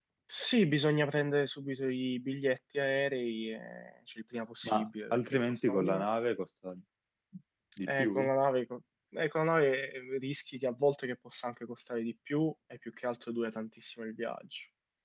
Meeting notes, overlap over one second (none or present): present